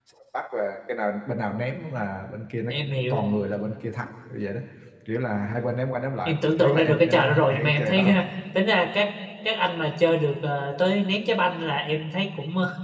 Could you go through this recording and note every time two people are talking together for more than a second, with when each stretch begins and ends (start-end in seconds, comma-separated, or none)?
6.2-8.1